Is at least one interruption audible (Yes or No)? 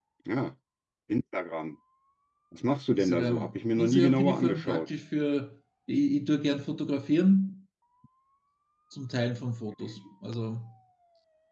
Yes